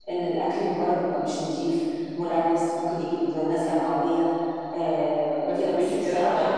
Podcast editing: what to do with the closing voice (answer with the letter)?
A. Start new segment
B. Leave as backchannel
A